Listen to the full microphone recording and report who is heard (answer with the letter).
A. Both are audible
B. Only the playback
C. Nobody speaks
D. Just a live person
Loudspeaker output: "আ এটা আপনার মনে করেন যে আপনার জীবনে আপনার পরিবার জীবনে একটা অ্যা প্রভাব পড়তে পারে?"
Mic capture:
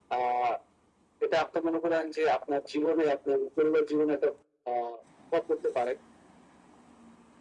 B